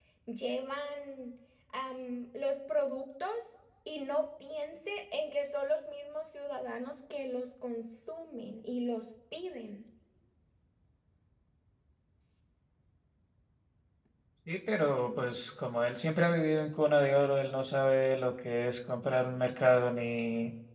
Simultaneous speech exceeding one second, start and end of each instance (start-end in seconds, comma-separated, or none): none